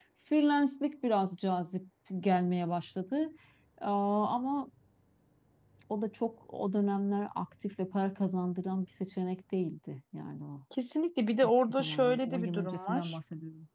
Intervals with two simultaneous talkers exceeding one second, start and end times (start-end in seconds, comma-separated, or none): 11.7-13.2